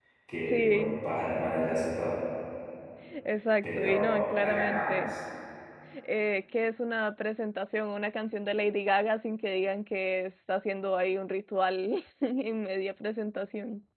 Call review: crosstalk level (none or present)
present